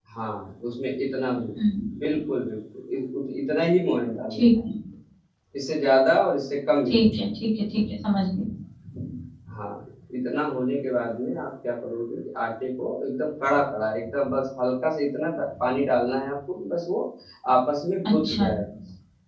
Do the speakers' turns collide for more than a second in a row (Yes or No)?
No